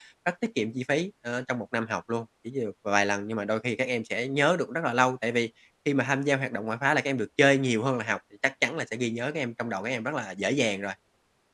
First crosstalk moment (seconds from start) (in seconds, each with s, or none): none